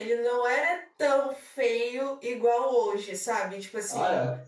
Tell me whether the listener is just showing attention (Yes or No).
Yes